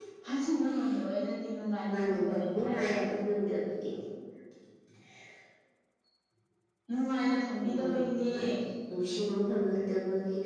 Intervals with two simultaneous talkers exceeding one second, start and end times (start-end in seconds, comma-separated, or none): 1.9-3.1